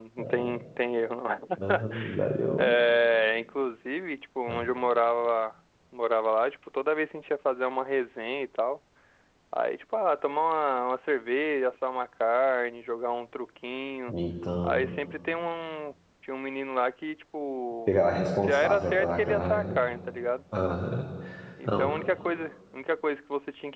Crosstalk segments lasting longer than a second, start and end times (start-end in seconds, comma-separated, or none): 18.4-19.8